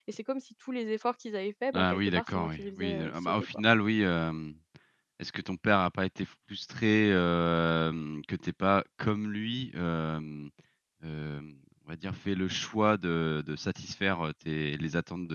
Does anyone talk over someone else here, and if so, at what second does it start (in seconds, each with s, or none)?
1.7 s